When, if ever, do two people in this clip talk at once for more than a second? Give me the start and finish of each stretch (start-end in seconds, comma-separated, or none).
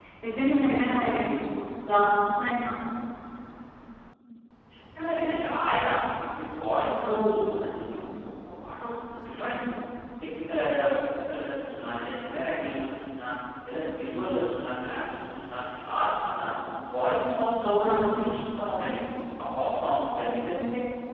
none